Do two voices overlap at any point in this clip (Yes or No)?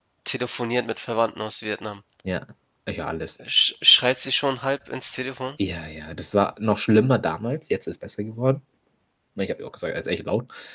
No